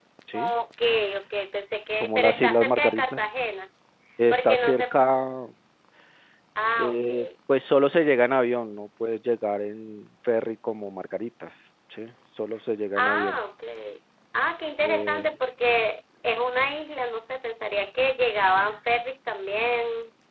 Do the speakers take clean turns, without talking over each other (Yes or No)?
No